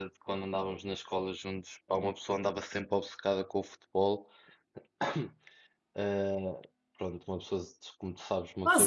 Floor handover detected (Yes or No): Yes